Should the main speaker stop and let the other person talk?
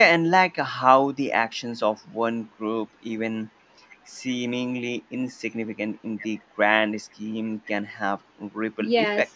Yes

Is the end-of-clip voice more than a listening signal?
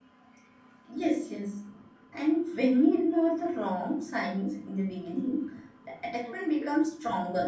No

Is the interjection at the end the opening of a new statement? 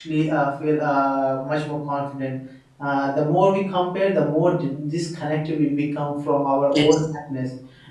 No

